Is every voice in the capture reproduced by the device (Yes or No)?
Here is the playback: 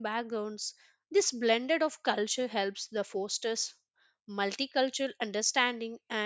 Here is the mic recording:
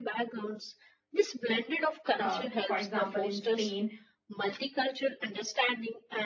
No